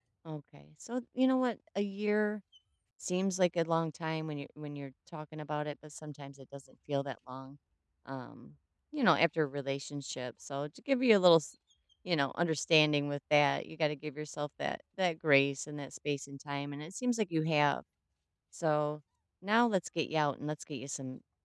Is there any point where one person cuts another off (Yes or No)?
No